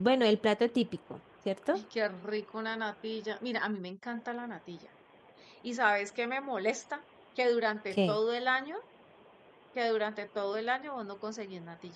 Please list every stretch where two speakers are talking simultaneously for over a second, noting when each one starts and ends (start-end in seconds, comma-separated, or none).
none